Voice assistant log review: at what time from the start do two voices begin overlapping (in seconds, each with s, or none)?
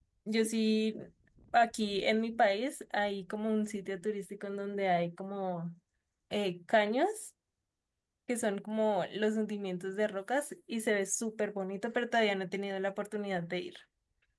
none